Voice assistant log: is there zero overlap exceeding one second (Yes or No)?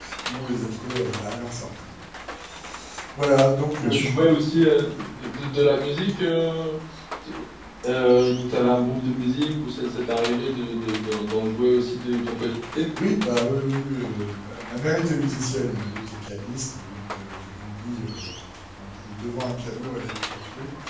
Yes